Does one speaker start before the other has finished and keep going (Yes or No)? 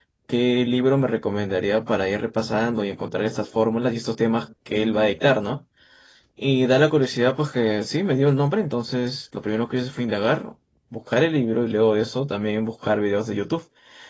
No